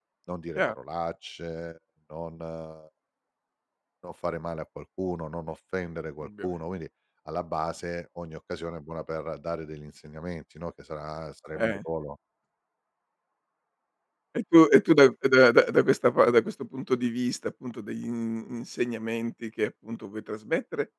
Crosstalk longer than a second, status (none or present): none